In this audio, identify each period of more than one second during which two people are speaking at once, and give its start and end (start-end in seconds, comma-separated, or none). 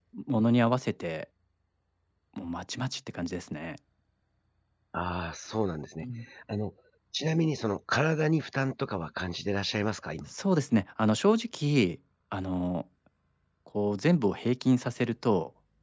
none